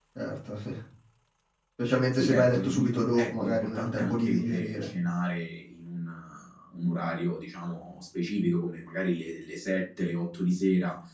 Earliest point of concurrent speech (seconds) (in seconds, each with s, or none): 2.1 s